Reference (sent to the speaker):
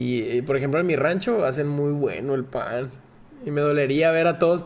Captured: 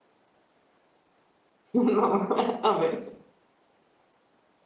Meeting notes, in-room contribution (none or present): present